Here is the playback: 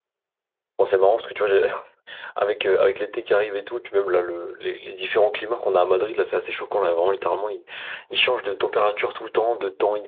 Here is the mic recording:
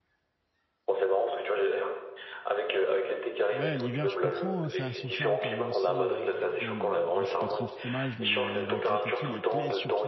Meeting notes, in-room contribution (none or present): present